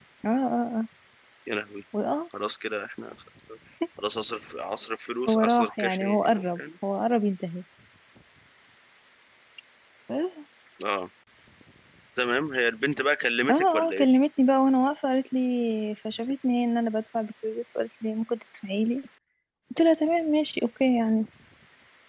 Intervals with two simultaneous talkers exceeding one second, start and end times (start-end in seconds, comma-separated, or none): 5.3-6.6